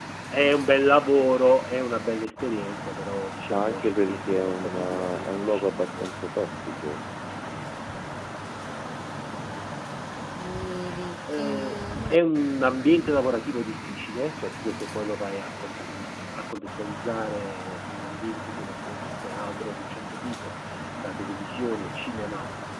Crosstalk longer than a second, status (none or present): present